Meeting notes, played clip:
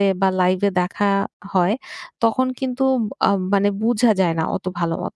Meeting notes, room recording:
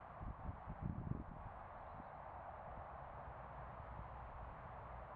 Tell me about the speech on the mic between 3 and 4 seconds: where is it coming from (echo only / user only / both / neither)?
neither